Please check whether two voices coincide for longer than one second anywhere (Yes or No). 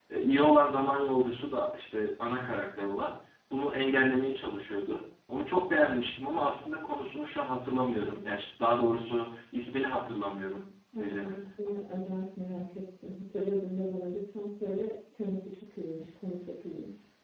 No